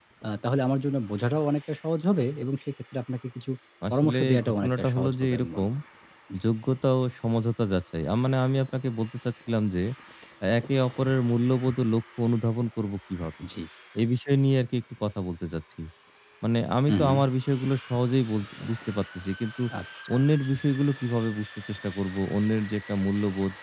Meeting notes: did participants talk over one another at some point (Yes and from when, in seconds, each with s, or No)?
Yes, from 3.9 s